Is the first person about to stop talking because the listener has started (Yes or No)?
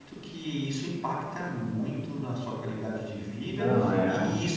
No